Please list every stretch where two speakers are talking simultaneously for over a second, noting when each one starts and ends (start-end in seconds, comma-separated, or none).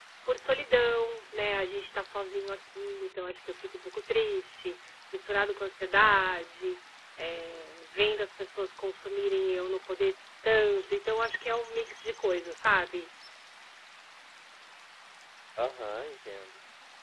none